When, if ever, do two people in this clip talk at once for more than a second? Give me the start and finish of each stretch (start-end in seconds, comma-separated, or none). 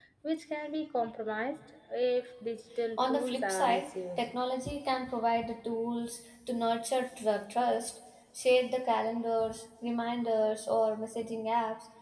3.0-4.2